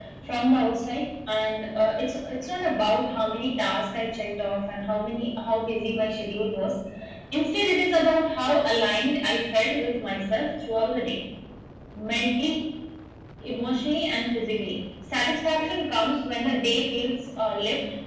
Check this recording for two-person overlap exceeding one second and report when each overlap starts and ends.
none

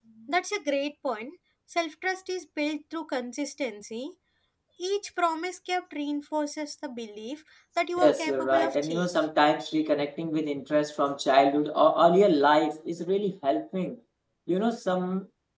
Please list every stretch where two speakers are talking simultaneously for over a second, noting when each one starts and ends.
8.0-9.2

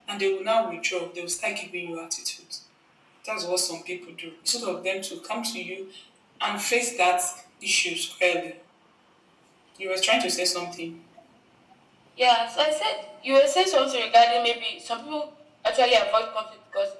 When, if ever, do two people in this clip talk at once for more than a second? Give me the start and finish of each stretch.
none

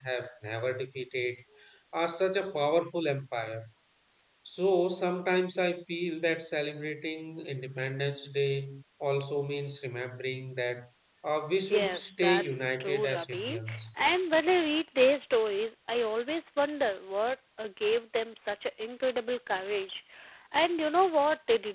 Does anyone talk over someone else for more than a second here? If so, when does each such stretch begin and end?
11.7-13.8

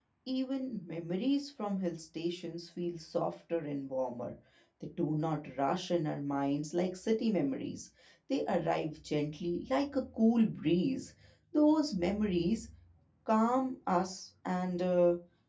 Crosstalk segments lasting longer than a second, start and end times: none

